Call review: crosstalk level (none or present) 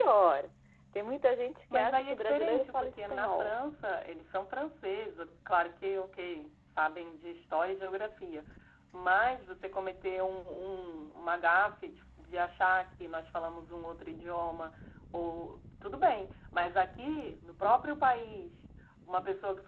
present